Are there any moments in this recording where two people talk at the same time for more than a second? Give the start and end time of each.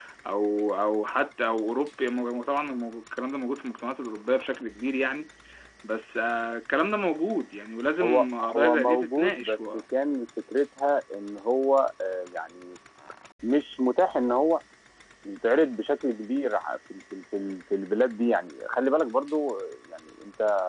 8.0-9.8

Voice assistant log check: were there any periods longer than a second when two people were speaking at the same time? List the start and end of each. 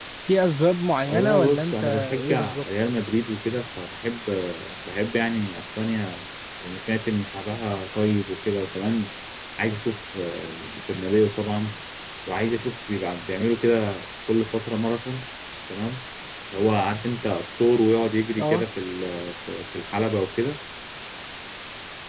1.1-2.6

